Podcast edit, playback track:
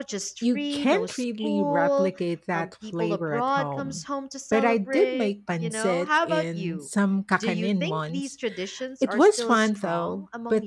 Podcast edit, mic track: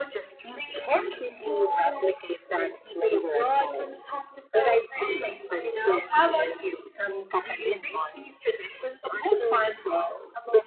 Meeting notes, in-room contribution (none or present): none